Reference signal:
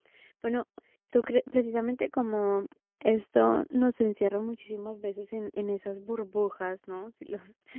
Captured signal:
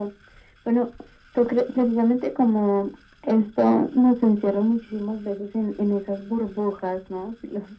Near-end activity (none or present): none